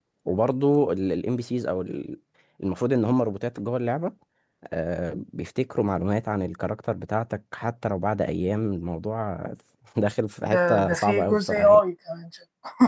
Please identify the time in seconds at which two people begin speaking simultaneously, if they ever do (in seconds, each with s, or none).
10.4 s